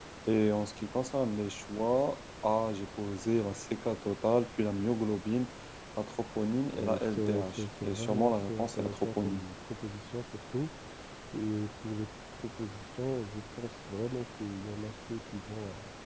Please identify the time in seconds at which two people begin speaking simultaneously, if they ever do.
6.7 s

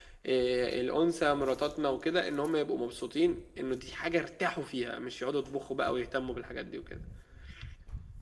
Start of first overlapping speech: none

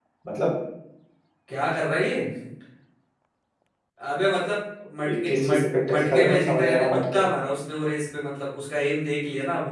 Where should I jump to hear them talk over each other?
5.0 s

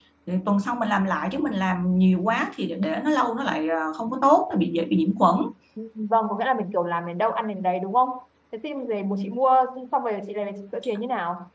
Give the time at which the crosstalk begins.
none

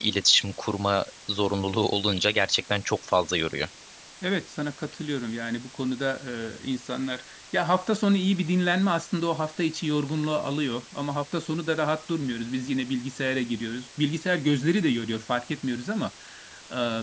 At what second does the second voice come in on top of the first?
none

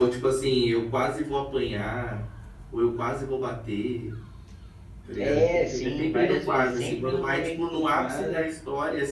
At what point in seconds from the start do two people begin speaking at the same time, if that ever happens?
5.2 s

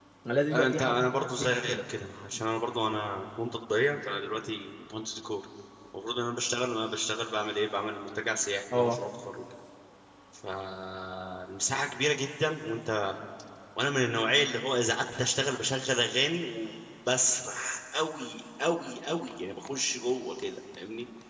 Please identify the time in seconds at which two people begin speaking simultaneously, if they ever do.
0.5 s

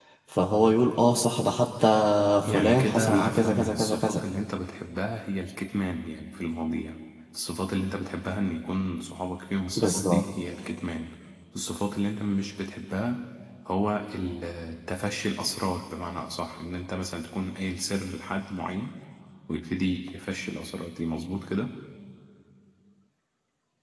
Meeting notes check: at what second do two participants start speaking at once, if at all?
2.4 s

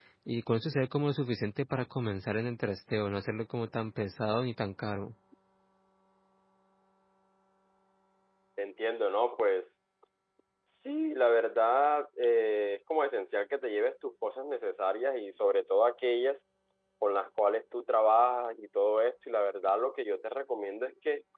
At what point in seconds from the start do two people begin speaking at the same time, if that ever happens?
none

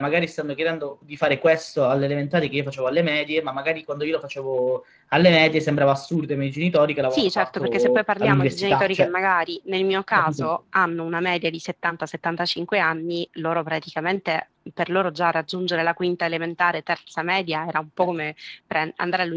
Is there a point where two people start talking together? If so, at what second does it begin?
7.1 s

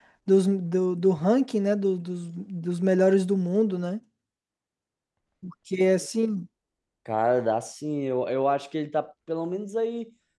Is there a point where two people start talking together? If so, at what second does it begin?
none

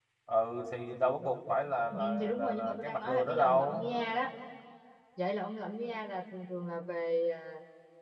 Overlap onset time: 1.9 s

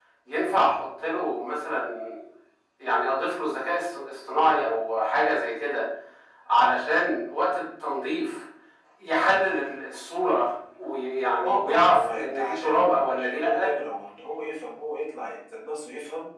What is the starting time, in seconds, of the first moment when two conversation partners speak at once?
11.4 s

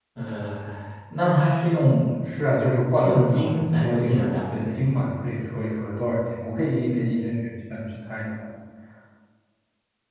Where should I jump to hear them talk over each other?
2.9 s

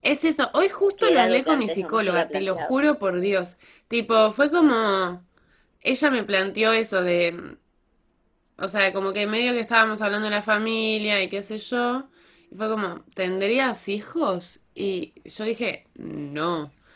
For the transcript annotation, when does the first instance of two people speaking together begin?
1.0 s

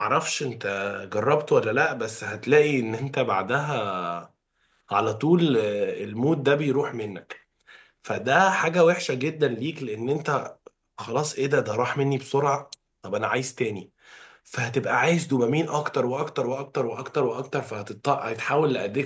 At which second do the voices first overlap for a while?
none

